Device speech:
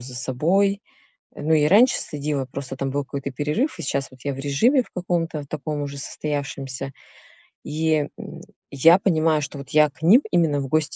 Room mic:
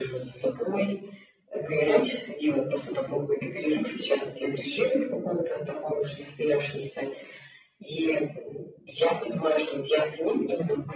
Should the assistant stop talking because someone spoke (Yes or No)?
No